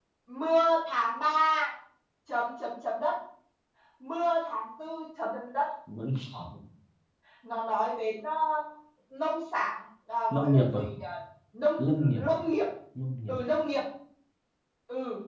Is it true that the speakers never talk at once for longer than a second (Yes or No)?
Yes